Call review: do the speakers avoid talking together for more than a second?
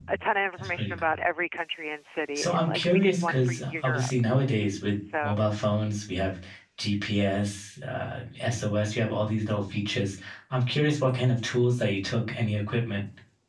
No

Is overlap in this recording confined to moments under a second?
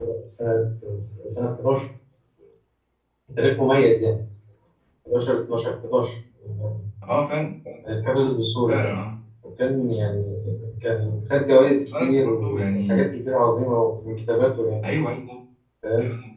No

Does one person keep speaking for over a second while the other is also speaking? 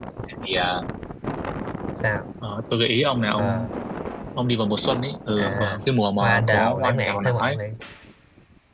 Yes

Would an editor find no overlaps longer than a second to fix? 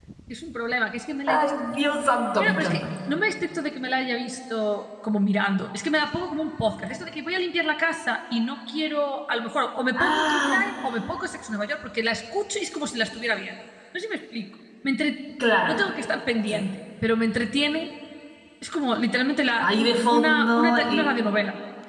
No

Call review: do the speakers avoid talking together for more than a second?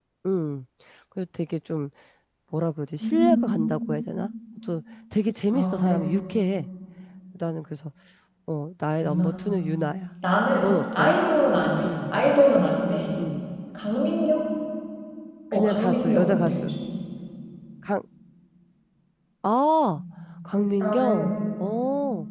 No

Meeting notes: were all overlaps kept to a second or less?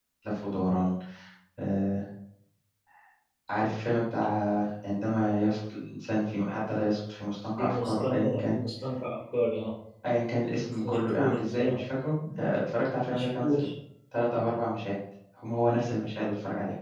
No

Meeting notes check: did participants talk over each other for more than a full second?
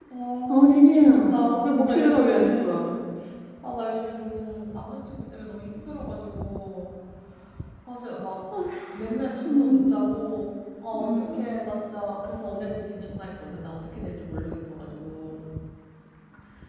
Yes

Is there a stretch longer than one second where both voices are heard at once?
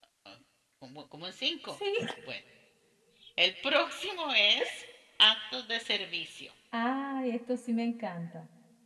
No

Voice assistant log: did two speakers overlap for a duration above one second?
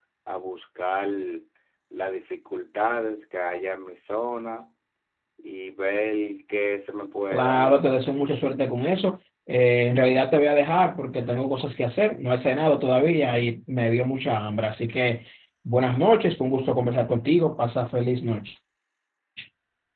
No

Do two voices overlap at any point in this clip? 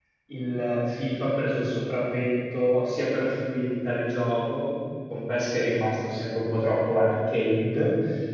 No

